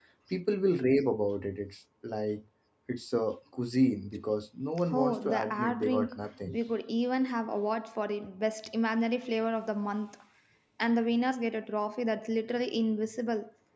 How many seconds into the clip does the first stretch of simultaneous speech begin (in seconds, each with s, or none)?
4.9 s